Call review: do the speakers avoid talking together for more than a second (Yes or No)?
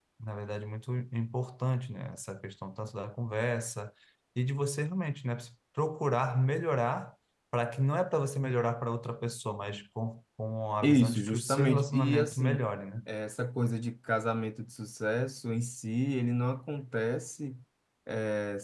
No